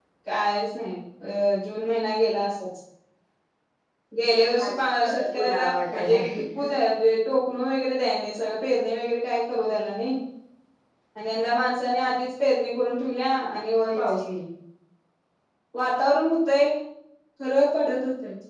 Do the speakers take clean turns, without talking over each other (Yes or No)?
No